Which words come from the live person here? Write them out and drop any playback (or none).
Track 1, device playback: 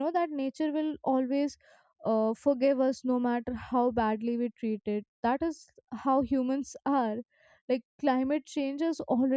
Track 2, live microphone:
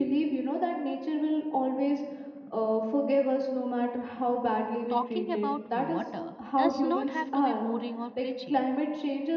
talking about water does not have to be boring or preachy.